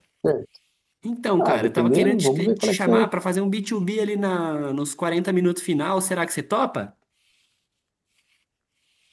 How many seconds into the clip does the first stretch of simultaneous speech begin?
1.4 s

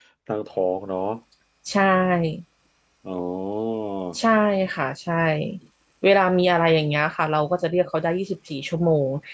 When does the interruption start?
none

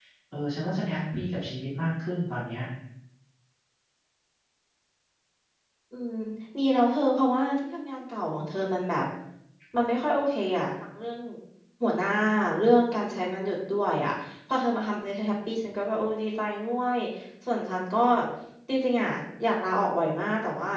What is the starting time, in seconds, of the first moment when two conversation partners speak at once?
none

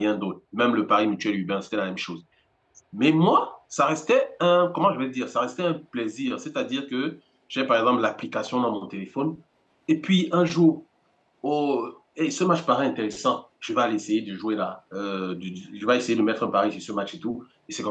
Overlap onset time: none

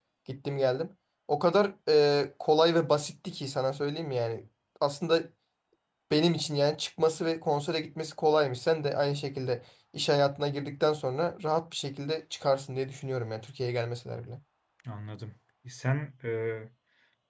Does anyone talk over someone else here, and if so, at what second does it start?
none

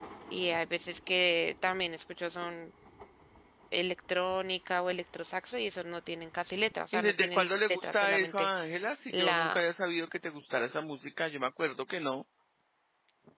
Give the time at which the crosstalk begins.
6.9 s

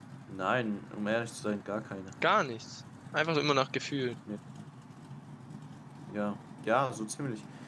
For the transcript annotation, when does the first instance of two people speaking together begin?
none

